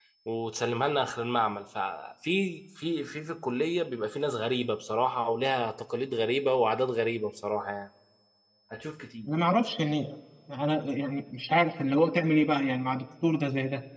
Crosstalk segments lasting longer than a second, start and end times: none

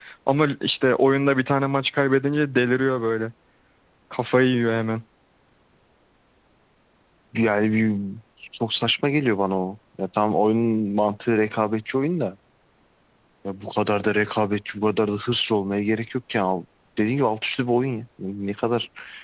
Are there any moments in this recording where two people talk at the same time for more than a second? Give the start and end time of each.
none

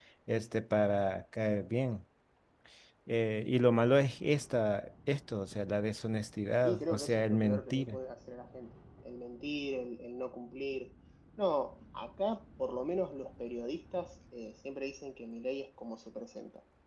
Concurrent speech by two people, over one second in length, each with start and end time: 6.6-8.0

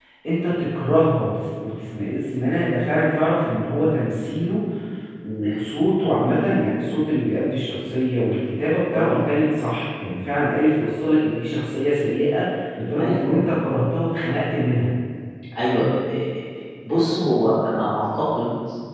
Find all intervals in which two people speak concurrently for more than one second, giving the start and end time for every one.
none

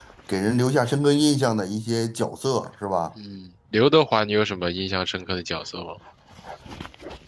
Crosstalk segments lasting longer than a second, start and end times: none

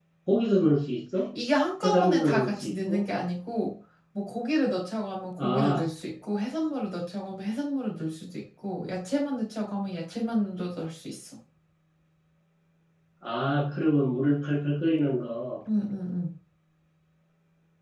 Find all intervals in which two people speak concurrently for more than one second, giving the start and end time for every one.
1.8-3.1

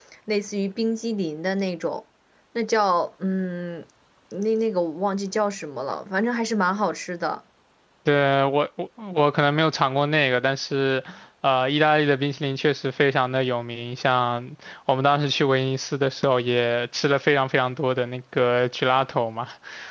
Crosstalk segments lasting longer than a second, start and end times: none

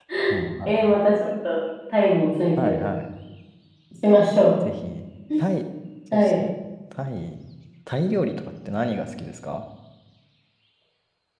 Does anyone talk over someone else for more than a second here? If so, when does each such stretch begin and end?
none

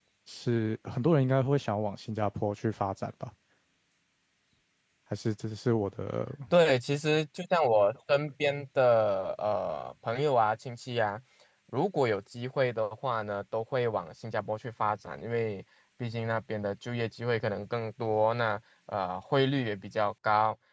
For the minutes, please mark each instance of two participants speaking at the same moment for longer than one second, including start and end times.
none

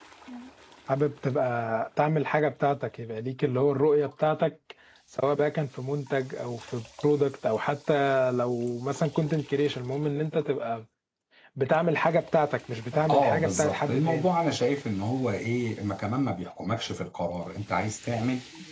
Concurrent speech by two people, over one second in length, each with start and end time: 13.1-14.3

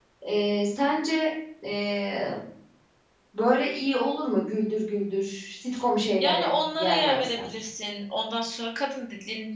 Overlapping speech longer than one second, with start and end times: 6.2-7.5

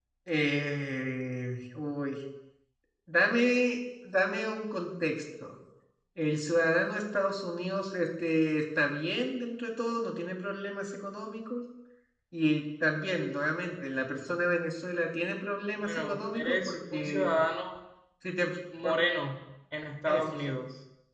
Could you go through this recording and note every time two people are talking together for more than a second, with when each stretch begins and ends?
15.8-17.2

